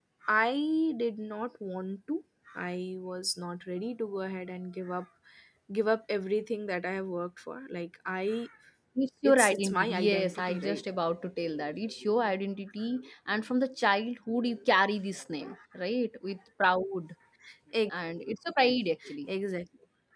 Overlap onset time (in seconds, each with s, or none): 9.2 s